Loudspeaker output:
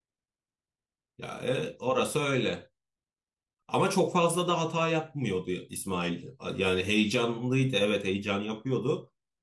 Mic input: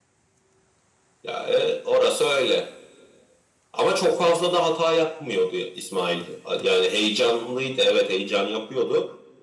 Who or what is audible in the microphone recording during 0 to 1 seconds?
neither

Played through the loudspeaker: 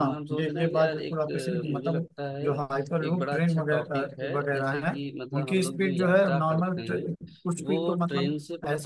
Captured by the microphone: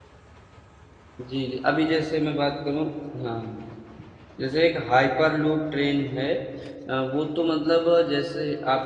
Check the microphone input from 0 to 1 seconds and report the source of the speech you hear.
neither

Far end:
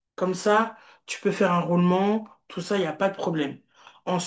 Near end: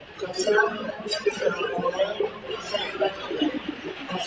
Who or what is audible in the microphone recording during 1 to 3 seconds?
echo only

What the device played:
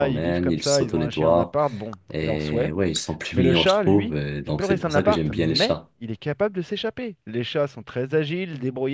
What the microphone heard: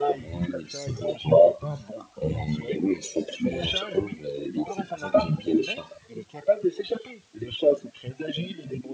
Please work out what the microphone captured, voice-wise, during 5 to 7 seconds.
echo only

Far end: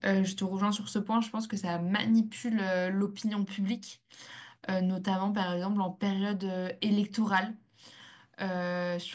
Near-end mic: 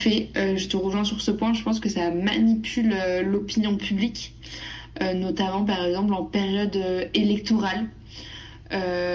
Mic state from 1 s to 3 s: echo only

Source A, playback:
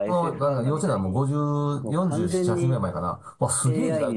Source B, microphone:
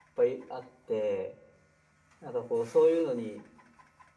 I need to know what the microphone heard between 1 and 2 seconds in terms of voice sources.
user only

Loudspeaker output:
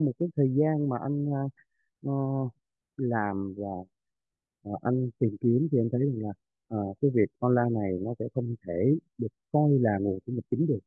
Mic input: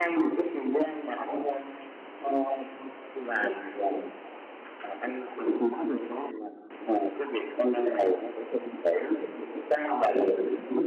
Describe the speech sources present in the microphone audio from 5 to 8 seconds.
echo only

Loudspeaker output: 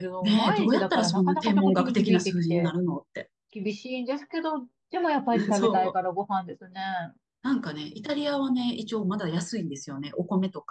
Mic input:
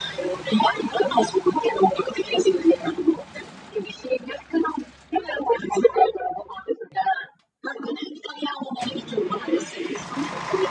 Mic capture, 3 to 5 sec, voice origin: echo only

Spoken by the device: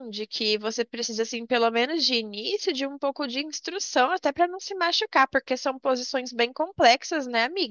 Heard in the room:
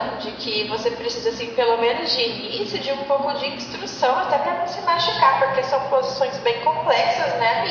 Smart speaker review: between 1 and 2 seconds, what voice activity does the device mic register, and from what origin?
echo only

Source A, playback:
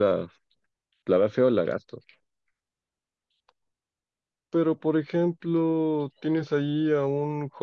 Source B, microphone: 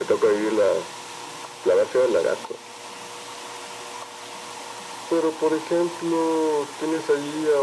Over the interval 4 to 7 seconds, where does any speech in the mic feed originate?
echo only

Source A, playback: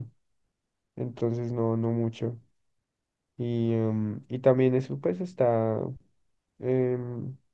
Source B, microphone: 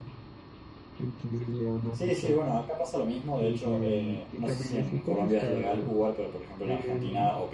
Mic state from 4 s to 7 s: both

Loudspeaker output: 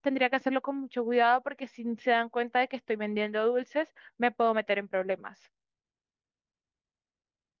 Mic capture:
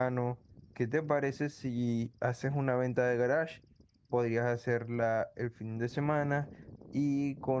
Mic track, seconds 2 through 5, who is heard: user only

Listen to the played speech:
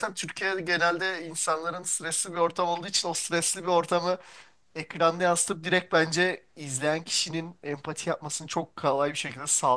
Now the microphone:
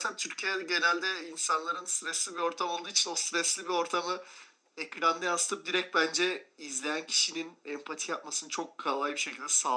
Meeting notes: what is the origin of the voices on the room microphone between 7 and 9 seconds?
echo only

